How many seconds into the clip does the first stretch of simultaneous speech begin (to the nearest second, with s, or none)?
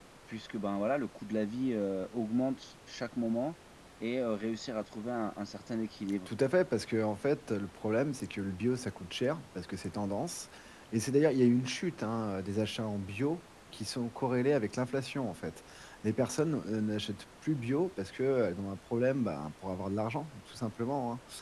none